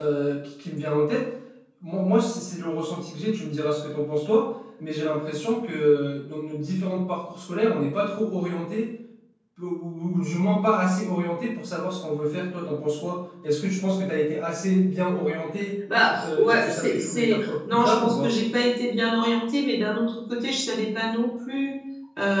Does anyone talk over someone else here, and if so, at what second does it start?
16.2 s

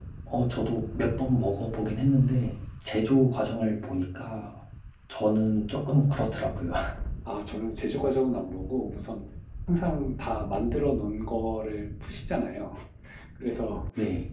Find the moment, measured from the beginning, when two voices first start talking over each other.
none

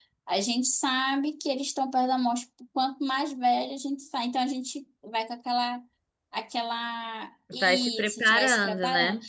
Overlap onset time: 7.6 s

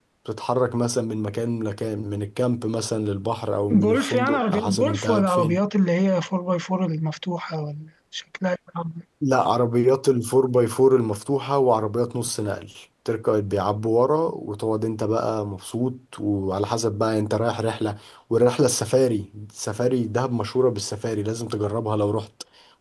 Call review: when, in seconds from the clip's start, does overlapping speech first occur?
3.7 s

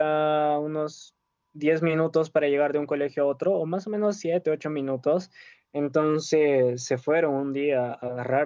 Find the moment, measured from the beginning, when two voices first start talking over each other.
none

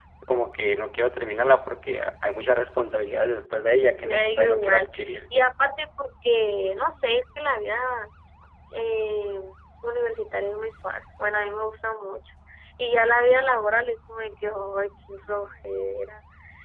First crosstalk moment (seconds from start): 3.6 s

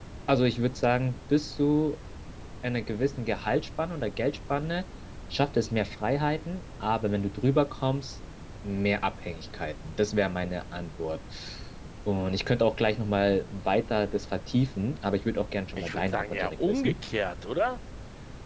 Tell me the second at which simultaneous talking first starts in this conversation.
15.8 s

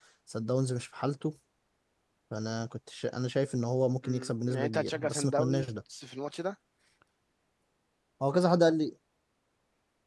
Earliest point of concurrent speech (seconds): 4.0 s

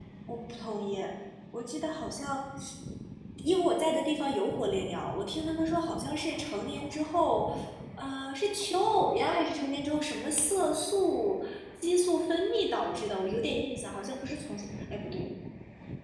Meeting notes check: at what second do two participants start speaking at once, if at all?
none

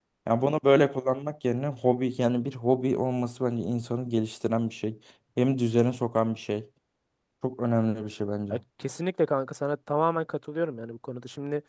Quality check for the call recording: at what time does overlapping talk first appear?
none

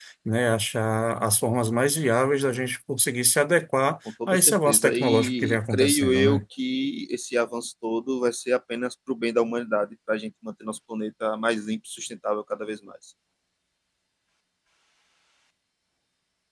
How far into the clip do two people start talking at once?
4.2 s

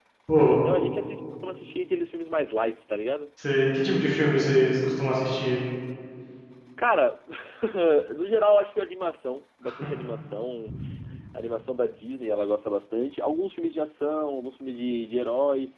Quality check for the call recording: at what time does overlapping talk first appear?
none

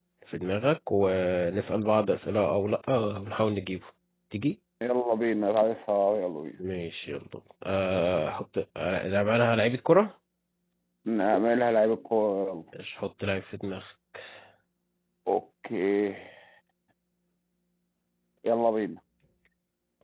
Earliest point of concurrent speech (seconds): none

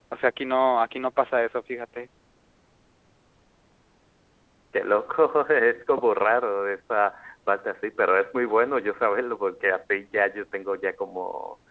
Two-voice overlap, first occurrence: none

